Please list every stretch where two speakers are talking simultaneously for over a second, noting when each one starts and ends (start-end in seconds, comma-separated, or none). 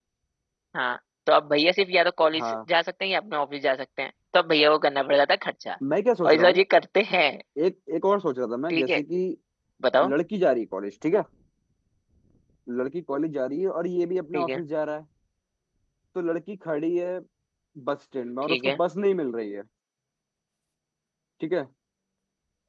none